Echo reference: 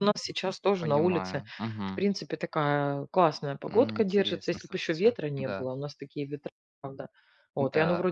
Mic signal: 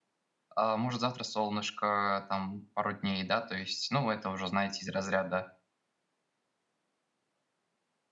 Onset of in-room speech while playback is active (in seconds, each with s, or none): 0.6 s